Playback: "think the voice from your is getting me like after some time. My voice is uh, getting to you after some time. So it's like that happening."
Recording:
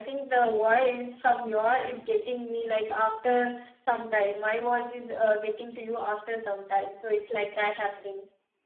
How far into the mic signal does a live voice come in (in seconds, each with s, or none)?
none